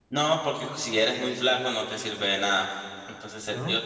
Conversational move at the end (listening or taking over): listening